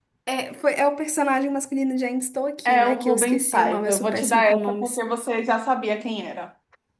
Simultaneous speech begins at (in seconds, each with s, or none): 2.6 s